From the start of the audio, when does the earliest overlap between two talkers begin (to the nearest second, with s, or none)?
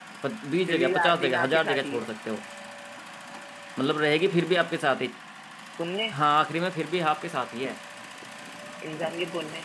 1 s